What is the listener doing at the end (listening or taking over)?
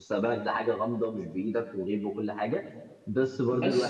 taking over